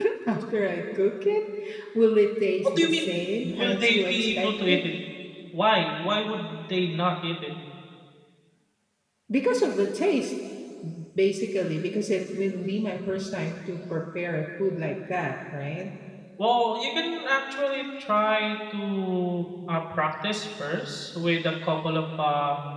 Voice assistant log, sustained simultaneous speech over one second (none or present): present